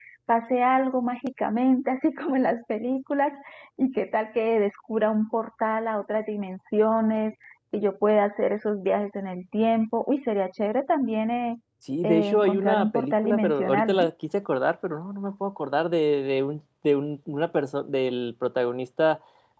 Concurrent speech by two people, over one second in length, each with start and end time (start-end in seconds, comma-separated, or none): 12.0-14.0